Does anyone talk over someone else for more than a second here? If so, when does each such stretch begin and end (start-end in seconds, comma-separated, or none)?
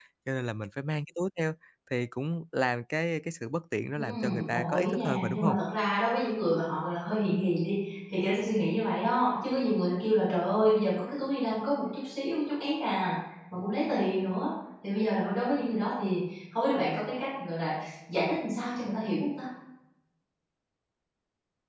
4.0-5.6